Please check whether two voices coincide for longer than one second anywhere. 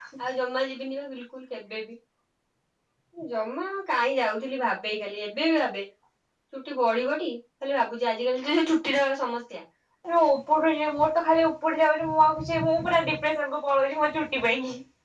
No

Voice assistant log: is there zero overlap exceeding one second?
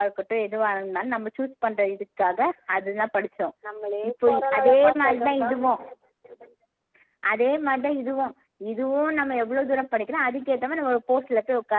No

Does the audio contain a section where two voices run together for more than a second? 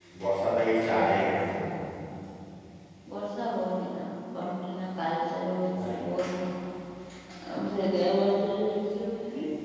No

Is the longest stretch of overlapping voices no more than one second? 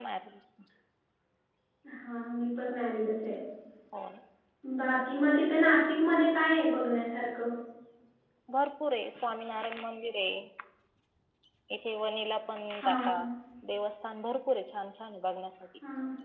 Yes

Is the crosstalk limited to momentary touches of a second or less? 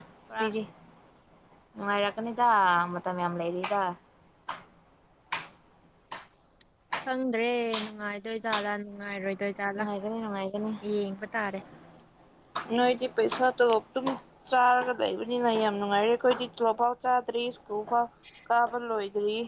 Yes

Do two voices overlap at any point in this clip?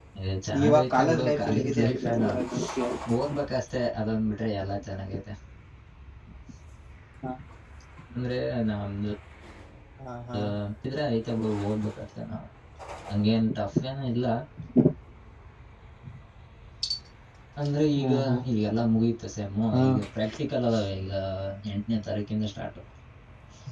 Yes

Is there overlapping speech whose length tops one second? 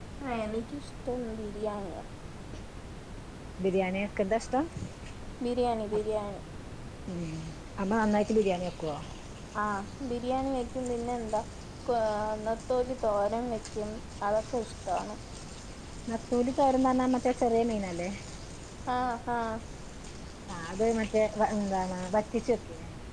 No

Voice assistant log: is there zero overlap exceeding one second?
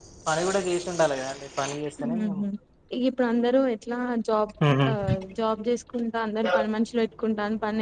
Yes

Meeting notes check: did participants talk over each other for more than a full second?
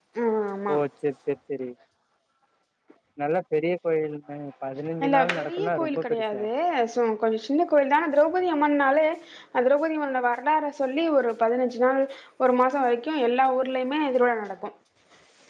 Yes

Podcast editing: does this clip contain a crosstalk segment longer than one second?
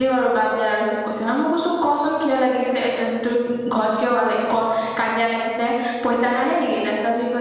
No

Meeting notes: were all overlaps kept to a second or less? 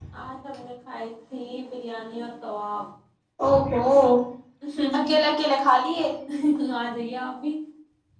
Yes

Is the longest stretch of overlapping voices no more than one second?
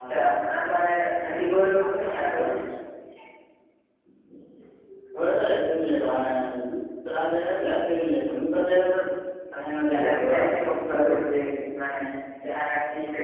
No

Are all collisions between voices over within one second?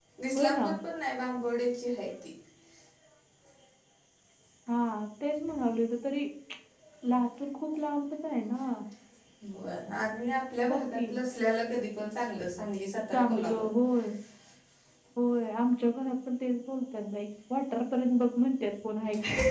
Yes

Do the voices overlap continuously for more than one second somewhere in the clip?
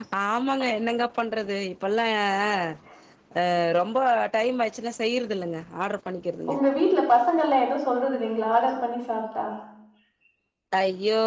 No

